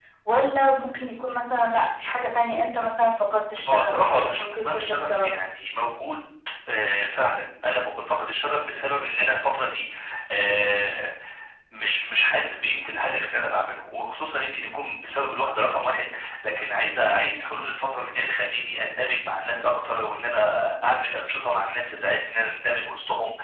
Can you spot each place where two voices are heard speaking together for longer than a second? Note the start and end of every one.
3.7-5.3

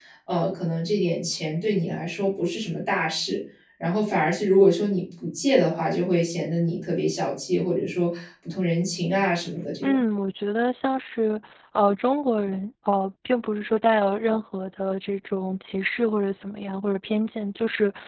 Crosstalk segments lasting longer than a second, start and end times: none

